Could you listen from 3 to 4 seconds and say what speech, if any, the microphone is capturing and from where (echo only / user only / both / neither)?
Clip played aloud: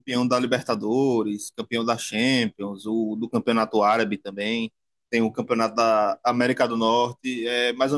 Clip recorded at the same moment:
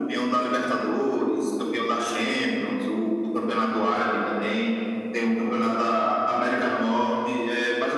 echo only